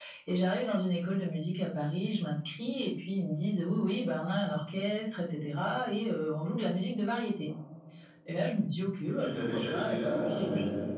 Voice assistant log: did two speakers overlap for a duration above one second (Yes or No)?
Yes